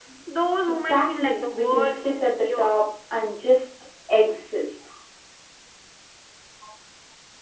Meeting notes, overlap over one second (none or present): present